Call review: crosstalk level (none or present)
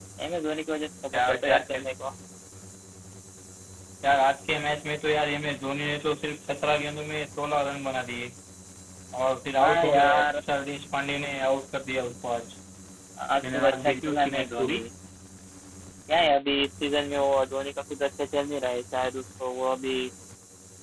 present